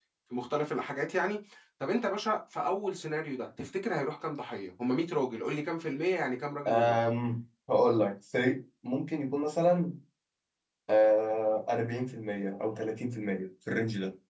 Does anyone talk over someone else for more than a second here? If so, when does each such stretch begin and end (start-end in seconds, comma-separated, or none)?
none